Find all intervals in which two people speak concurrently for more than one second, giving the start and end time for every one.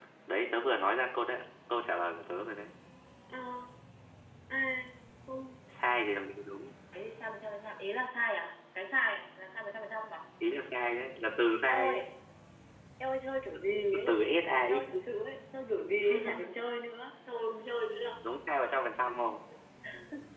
none

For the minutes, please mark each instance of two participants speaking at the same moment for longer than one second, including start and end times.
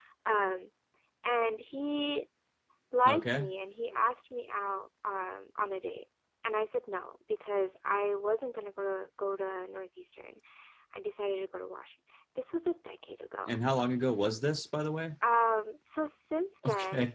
none

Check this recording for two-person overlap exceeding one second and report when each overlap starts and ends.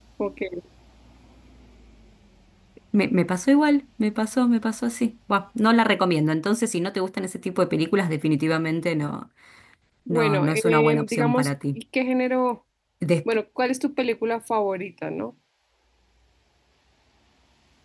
10.1-11.8

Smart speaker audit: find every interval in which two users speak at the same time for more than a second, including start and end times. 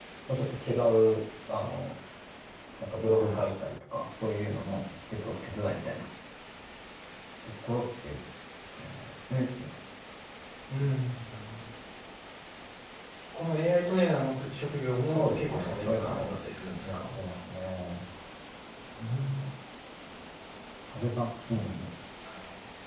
15.1-16.3

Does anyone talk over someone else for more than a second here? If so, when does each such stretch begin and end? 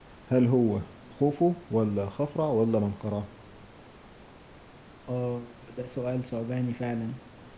none

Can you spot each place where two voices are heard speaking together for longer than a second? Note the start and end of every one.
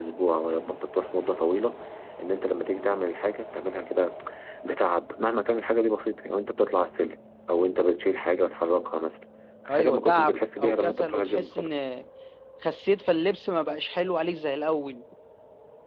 9.7-11.7

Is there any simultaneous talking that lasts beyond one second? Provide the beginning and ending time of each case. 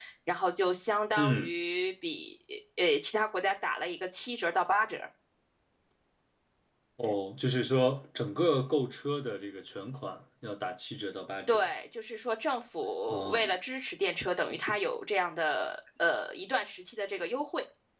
none

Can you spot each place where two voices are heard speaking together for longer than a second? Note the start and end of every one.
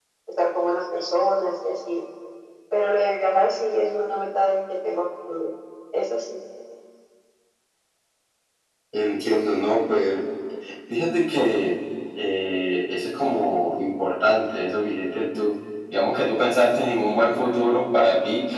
none

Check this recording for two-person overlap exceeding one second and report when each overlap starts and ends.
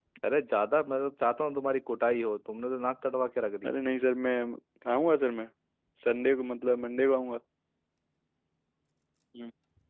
none

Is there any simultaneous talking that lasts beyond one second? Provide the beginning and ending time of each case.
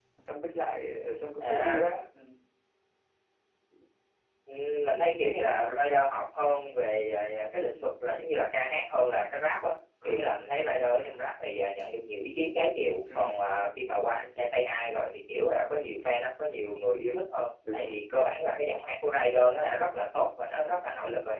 none

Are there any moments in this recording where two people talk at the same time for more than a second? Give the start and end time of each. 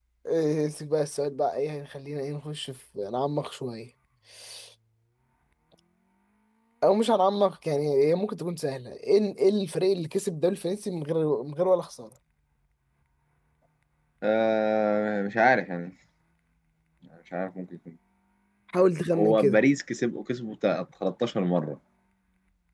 none

